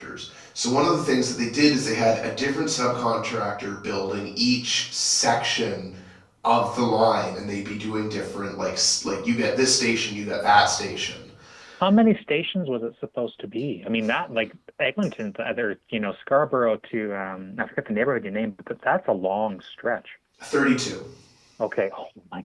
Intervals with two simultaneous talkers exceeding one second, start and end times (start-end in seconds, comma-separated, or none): none